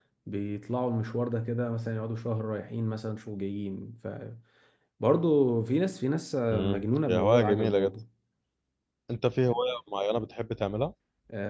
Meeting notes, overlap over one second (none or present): present